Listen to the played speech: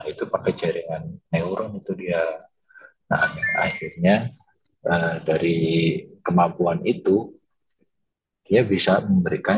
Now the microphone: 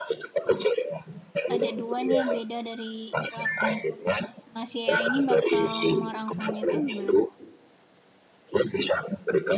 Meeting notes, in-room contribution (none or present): present